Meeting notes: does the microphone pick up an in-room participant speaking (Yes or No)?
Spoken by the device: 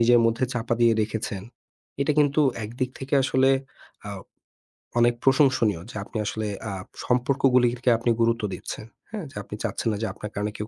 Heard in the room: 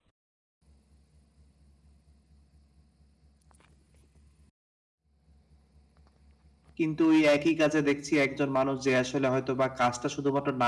Yes